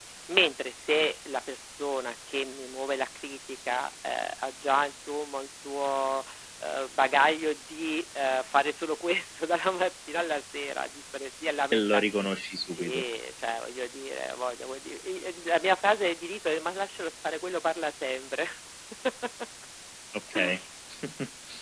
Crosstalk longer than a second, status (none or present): none